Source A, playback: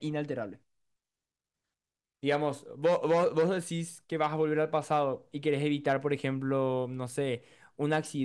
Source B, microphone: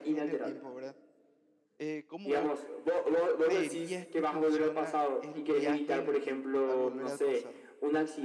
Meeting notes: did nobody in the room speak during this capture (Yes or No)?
No